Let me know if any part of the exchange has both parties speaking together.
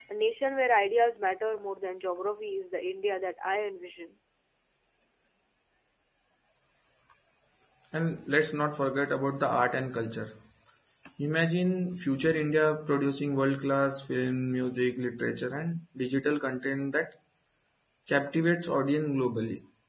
No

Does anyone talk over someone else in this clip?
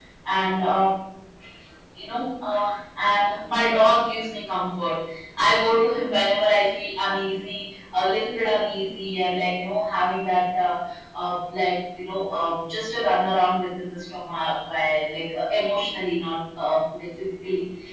No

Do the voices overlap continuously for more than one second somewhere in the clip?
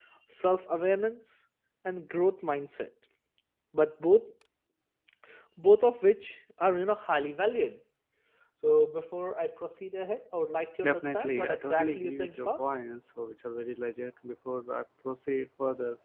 Yes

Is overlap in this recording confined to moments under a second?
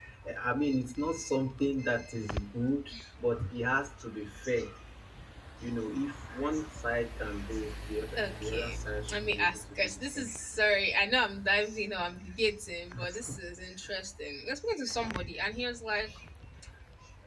No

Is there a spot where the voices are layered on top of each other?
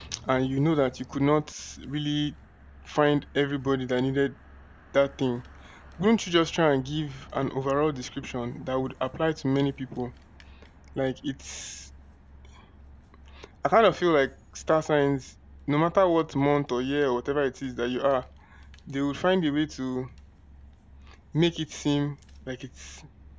No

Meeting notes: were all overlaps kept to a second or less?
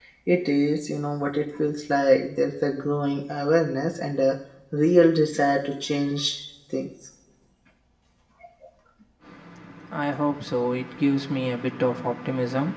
Yes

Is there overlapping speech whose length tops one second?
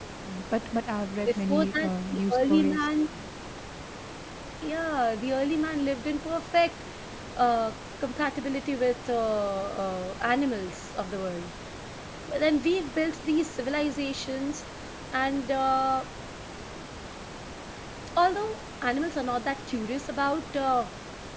Yes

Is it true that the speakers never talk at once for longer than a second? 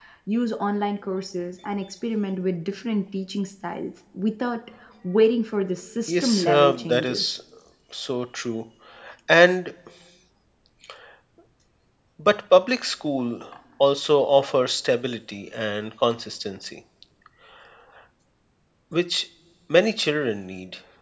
No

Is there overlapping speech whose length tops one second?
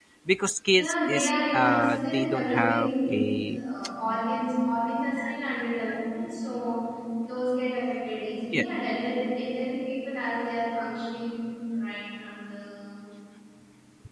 Yes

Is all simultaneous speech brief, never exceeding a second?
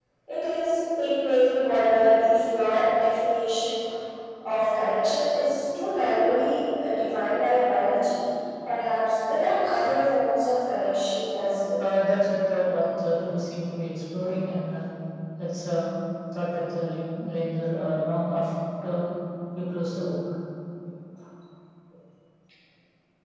Yes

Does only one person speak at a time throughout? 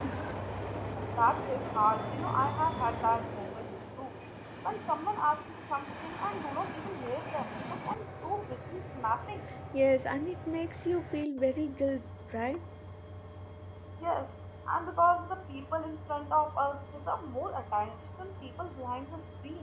Yes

